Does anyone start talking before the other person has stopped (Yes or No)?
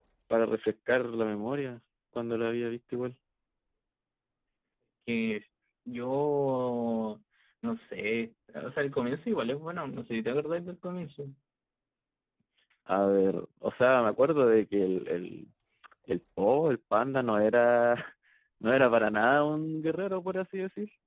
No